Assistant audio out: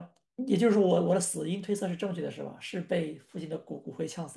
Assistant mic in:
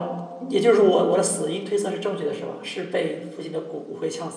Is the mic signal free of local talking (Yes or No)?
Yes